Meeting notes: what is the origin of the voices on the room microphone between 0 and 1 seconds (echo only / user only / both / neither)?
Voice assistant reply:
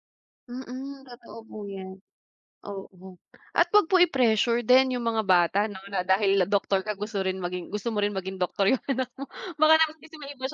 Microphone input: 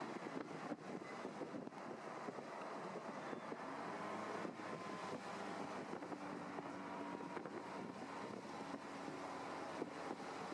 neither